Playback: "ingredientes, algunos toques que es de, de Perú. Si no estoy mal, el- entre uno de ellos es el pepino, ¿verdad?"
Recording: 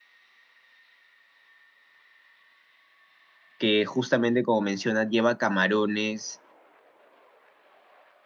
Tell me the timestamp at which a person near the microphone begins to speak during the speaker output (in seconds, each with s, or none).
3.6 s